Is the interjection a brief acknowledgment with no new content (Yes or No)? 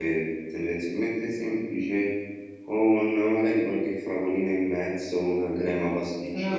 No